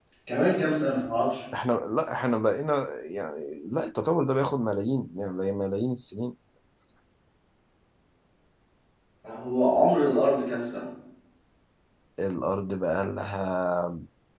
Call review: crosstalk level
none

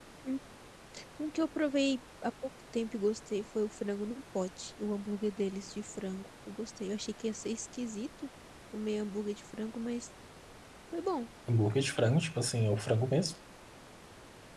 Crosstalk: none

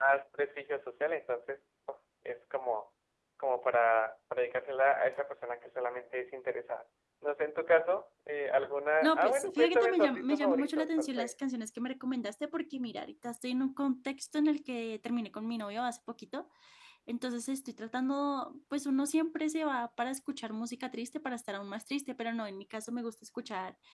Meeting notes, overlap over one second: present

